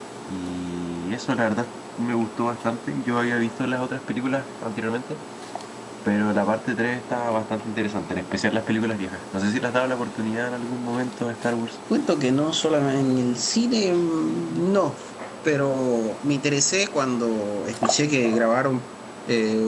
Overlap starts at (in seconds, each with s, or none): none